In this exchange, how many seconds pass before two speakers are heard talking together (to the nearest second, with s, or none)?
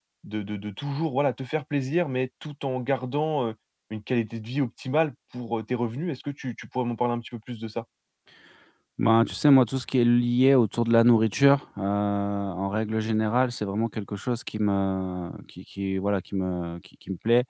none